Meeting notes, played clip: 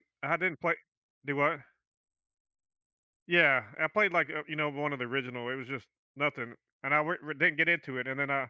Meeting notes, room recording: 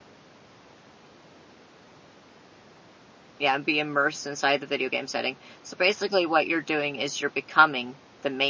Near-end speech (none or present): present